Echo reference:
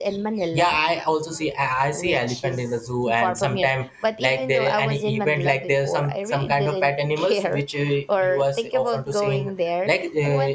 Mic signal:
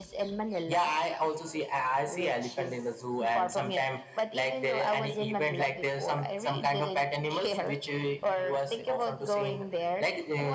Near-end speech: none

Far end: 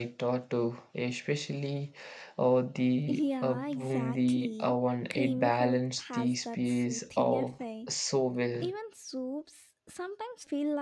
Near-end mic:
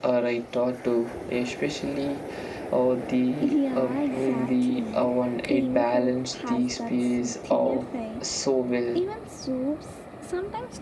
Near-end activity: none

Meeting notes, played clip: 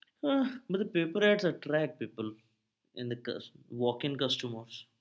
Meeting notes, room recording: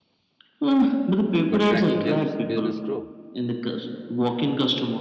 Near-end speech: present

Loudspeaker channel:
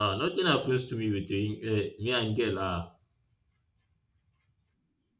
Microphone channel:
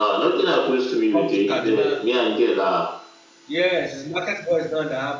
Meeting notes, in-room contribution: present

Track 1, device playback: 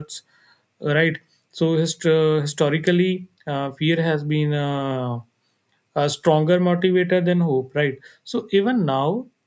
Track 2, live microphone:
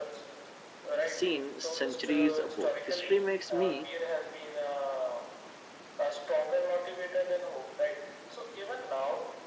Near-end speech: present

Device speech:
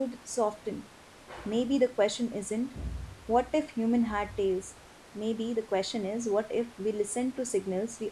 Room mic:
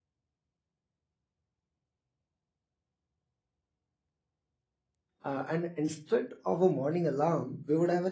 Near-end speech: present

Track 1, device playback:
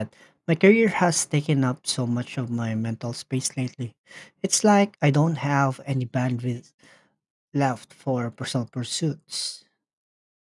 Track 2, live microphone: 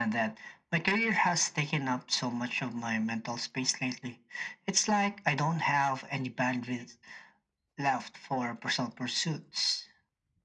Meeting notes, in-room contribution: none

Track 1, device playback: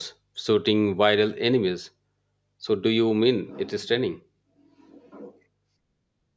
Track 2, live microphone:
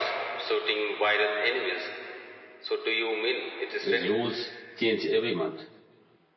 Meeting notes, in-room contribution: present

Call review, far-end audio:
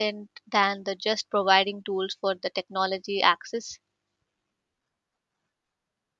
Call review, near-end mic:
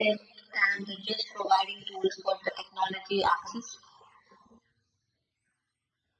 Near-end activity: none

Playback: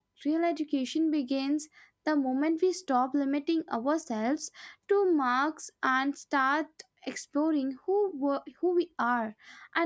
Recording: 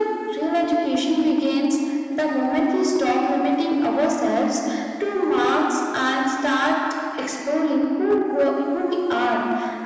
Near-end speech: none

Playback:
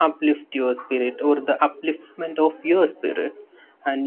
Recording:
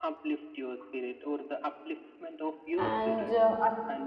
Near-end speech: present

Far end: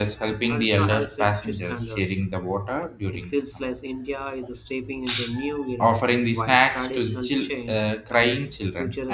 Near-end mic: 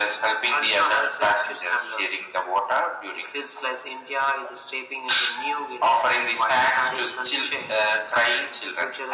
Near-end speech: none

